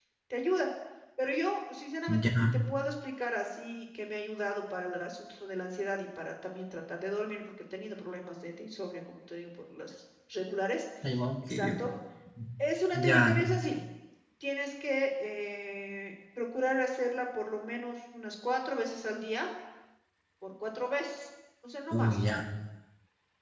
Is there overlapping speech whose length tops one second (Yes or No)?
No